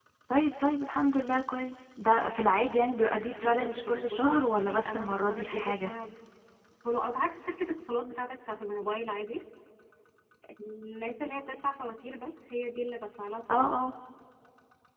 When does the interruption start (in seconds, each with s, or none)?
3.4 s